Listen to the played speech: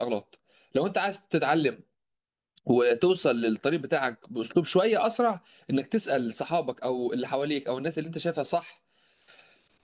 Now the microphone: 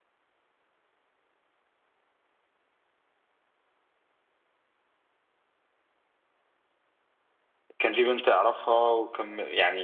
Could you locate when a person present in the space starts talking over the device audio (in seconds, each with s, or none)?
7.8 s